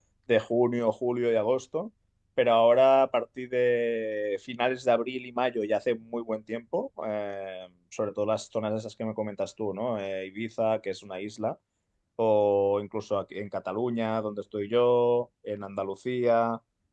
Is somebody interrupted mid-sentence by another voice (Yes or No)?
No